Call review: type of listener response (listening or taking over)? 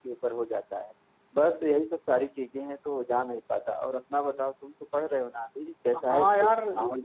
taking over